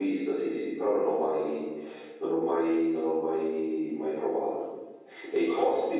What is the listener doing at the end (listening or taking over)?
listening